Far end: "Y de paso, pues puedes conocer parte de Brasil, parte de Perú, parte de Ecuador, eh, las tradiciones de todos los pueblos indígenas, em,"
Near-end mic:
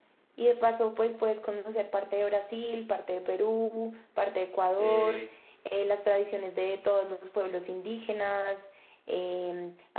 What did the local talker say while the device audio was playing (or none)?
Eh,